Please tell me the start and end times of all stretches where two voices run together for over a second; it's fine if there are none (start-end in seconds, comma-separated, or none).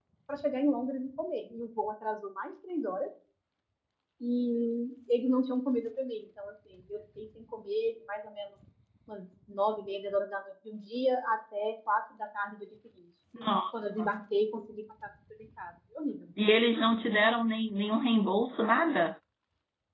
none